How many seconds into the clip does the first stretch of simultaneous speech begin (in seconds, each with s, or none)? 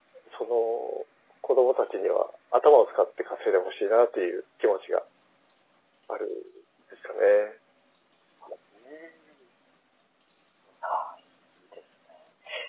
none